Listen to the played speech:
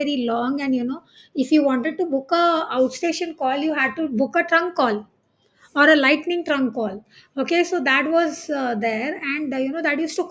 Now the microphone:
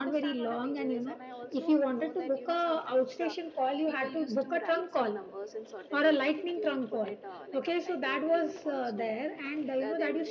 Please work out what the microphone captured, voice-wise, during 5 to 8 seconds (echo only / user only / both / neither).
both